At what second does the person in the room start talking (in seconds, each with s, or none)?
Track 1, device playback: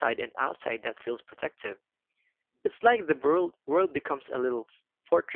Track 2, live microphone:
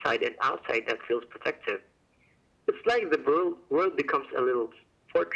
none